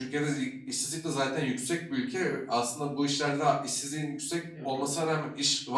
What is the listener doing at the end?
listening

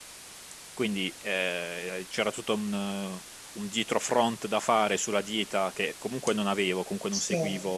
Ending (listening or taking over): listening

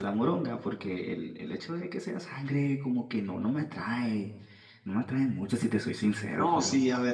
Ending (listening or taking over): taking over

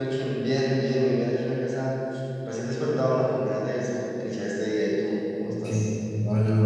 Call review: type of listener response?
taking over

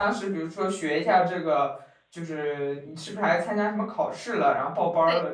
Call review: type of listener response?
taking over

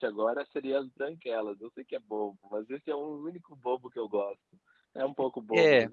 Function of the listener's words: taking over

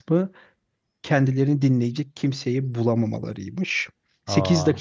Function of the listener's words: listening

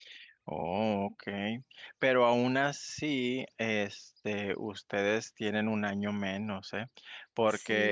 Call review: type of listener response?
listening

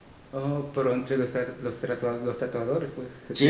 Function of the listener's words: taking over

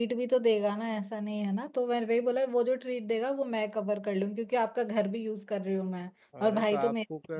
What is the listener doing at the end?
taking over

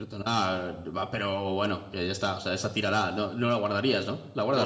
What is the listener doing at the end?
taking over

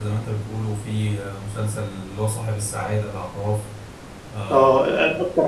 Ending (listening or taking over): taking over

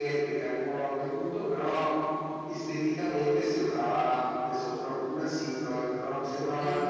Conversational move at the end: listening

